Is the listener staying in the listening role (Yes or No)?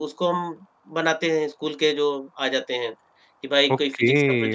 No